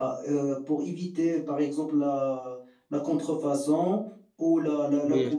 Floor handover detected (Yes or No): No